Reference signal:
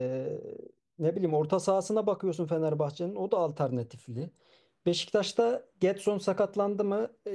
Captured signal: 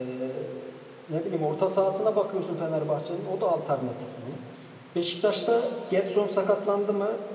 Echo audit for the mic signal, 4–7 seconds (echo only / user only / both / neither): echo only